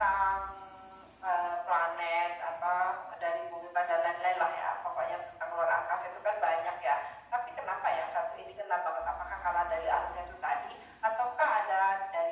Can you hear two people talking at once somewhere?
No

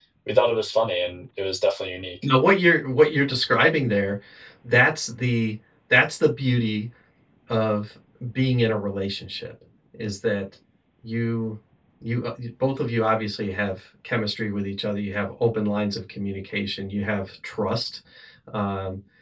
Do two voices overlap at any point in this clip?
No

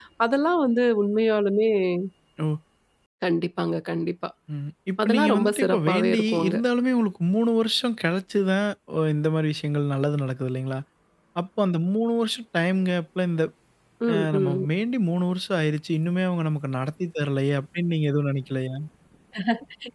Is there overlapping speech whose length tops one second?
Yes, from 5.0 s

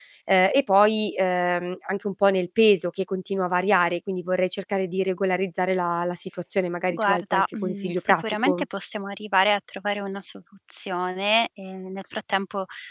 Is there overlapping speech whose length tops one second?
Yes, from 6.9 s

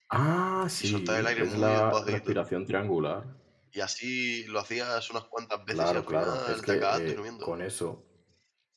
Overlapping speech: Yes, from 0.8 s

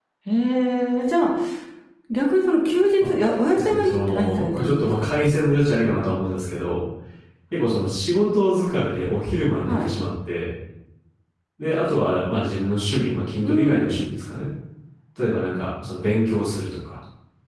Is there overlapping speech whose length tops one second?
Yes, from 3.6 s

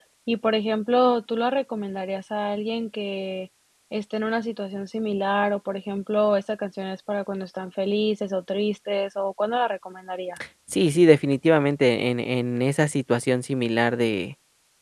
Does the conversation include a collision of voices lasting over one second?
No

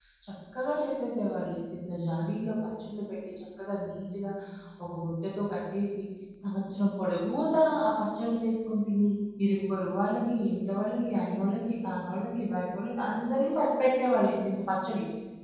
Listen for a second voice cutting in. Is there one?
No

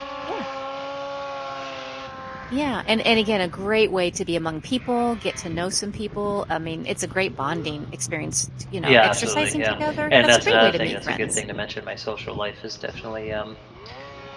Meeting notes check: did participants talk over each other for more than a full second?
Yes, from 8.8 s

